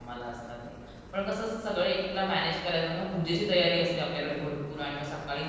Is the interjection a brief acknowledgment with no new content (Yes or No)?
Yes